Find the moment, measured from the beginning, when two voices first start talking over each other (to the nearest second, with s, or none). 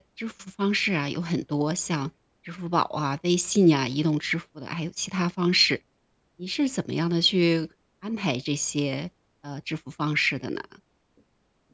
none